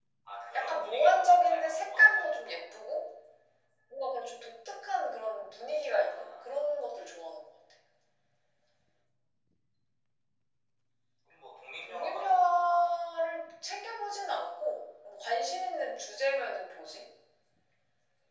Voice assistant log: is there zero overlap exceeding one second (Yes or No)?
No